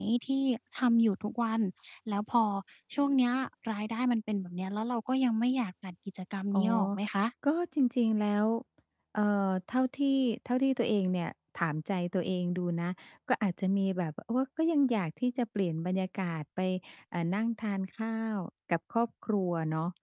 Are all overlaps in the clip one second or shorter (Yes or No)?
Yes